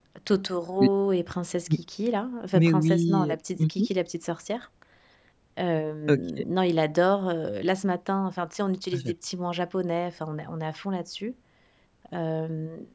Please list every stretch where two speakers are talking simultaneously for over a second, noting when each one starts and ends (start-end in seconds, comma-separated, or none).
2.5-3.9